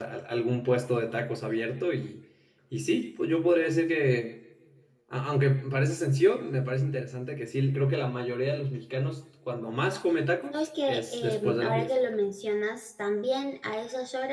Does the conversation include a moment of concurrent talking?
Yes, from 10.5 s

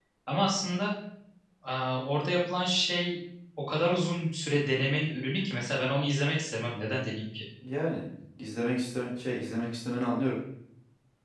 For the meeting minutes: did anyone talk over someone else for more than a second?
No

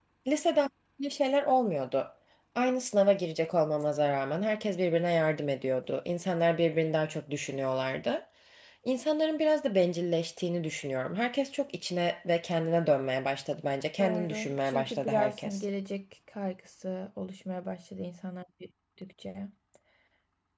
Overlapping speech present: Yes, from 14.0 s

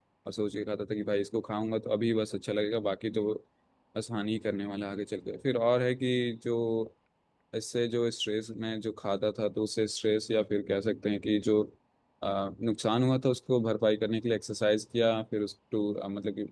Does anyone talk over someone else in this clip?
No

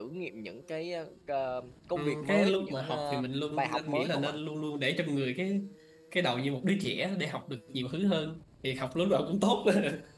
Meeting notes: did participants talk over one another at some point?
Yes, from 2.0 s

